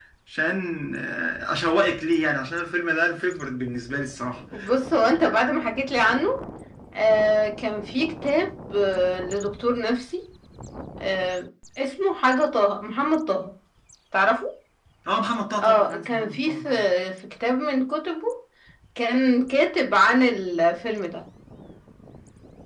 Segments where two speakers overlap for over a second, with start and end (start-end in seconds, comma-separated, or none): 15.6-16.9